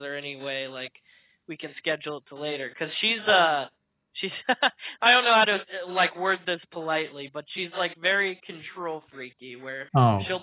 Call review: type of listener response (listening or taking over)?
listening